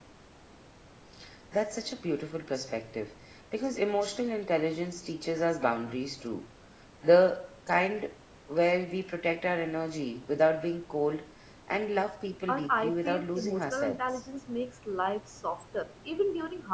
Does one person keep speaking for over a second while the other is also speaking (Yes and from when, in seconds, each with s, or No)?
Yes, from 12.5 s